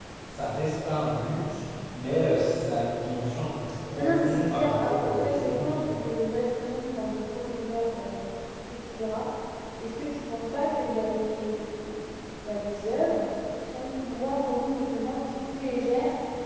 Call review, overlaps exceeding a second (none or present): present